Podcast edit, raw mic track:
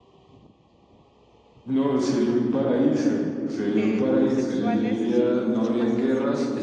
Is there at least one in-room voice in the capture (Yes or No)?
Yes